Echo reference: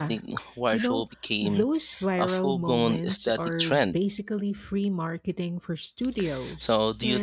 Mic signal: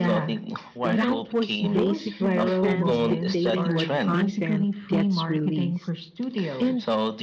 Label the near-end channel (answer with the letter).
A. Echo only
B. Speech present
B